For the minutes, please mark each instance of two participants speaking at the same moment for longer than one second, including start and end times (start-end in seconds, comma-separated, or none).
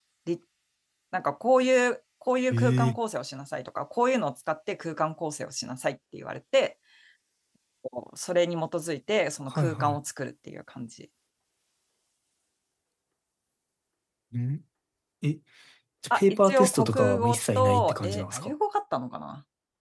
16.1-18.5